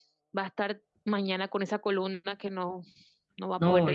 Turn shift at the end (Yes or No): Yes